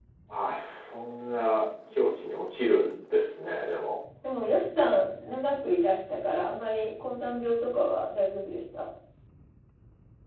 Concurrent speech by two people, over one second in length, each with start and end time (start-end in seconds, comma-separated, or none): none